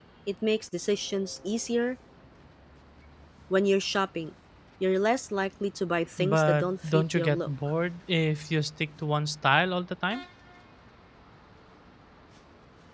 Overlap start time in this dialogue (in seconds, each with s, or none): 6.2 s